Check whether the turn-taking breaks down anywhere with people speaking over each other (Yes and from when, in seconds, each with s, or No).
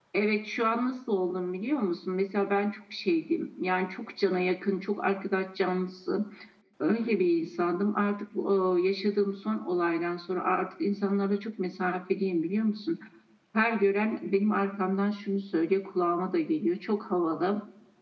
No